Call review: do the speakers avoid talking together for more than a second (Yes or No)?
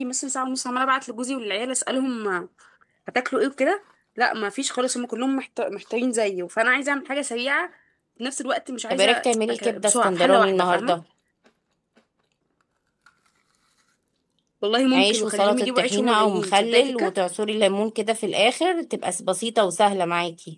No